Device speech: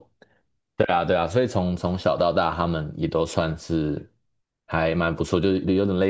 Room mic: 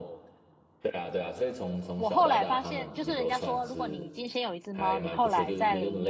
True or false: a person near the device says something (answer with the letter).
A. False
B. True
B